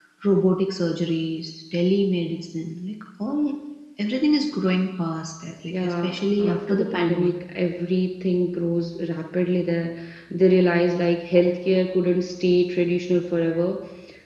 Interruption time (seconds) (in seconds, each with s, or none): 5.7 s